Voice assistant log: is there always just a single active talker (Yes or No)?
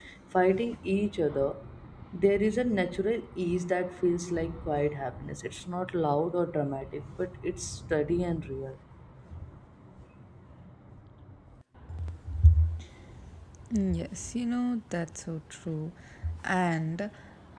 Yes